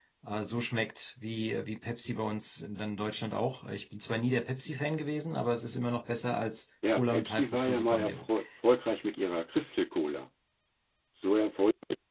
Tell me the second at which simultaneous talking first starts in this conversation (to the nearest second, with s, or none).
7 s